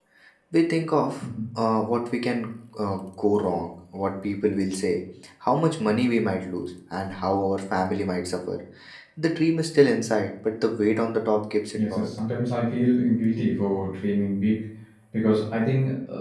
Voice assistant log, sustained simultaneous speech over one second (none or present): none